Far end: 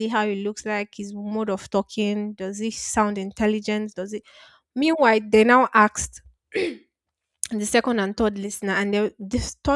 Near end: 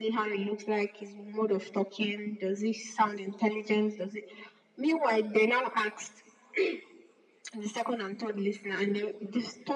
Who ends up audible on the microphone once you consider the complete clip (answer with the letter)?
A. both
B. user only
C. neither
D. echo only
D